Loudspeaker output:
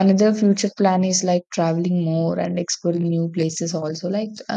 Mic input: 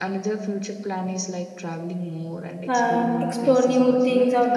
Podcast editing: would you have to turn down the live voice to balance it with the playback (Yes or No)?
Yes